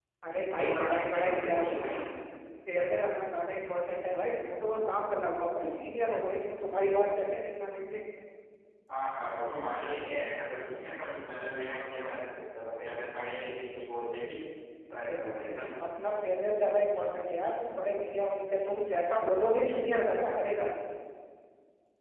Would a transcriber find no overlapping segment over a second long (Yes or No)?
No